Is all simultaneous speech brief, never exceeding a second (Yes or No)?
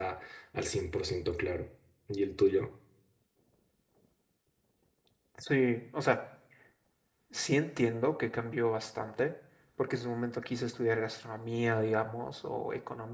Yes